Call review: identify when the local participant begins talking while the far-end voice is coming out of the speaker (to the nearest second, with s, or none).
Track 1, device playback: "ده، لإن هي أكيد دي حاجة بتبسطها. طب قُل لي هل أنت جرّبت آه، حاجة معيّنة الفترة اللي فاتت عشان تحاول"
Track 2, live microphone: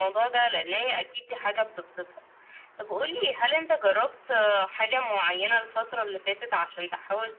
none